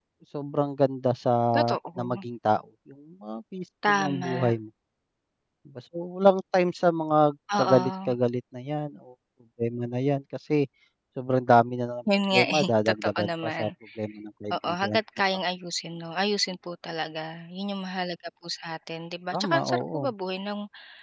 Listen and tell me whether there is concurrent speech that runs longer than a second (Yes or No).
Yes